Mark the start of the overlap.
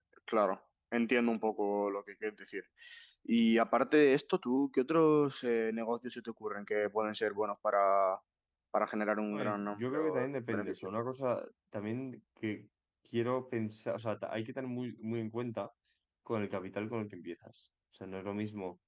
9.3 s

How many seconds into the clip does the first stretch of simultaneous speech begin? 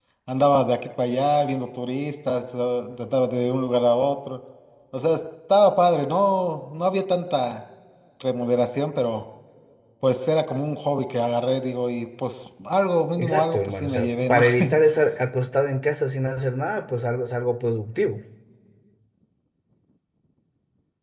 13.2 s

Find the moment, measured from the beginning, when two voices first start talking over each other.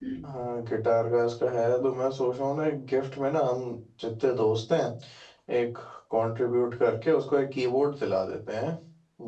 none

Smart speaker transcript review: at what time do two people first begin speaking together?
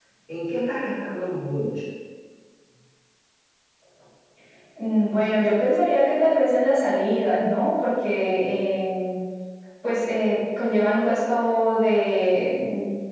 none

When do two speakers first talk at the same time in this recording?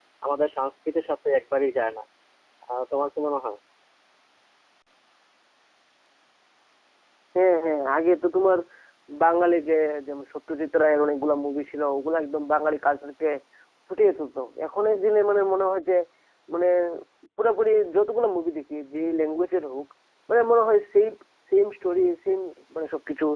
none

